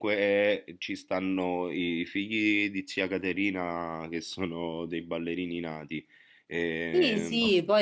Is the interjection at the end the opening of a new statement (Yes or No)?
Yes